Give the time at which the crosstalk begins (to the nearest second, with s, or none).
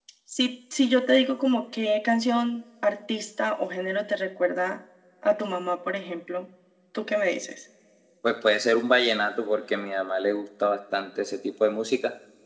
none